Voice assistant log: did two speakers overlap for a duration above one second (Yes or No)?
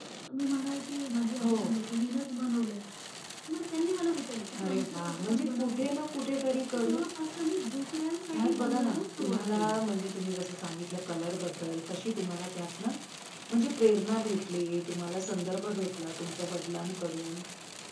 Yes